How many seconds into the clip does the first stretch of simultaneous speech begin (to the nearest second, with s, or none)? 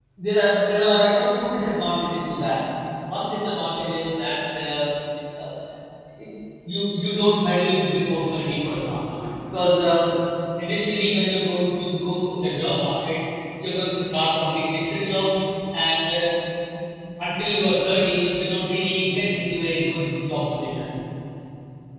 none